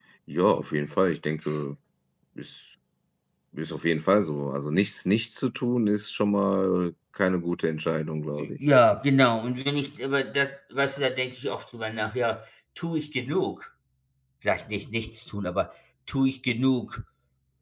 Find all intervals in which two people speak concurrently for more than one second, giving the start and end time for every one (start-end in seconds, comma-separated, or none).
none